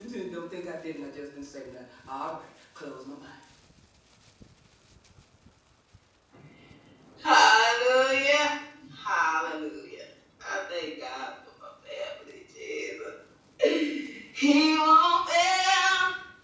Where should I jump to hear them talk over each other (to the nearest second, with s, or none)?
none